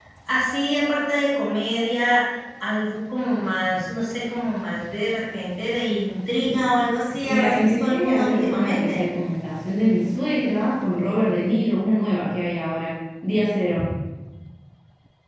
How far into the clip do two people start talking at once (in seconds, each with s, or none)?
7.2 s